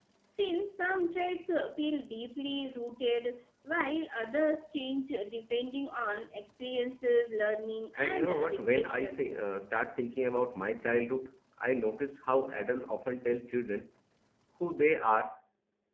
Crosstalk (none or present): present